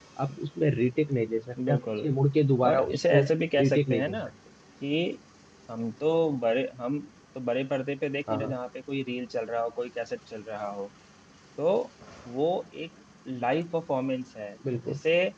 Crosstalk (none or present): present